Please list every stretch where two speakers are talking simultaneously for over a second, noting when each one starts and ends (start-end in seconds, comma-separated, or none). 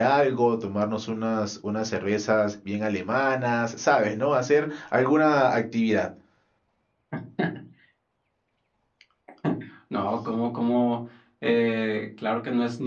none